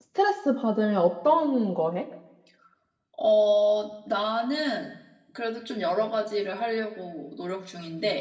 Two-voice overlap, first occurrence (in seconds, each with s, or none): none